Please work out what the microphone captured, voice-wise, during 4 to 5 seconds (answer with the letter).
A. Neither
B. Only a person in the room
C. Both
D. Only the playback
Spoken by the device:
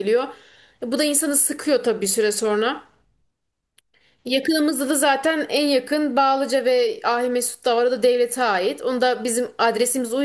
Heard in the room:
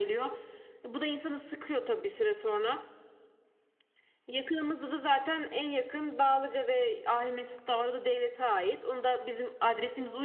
D